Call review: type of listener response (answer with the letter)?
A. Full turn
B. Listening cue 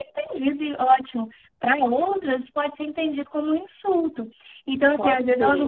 B